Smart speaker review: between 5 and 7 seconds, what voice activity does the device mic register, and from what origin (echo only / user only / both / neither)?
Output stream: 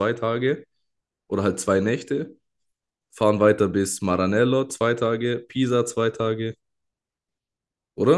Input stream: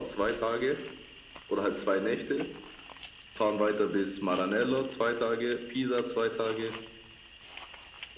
echo only